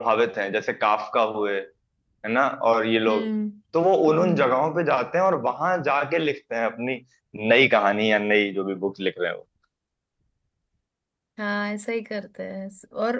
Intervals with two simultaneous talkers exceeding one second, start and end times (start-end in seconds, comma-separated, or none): none